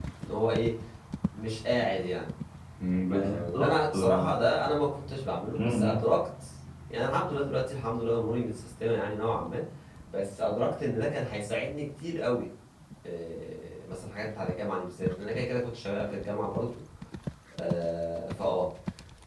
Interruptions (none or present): present